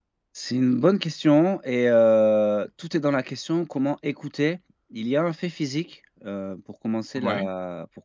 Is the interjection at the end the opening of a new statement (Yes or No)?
No